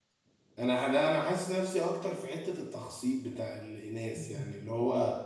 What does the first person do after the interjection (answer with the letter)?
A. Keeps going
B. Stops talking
A